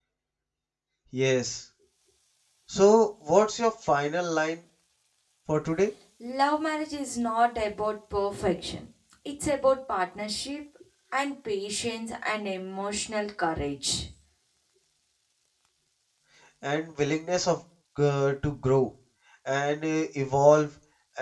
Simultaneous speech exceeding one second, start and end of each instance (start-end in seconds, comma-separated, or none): none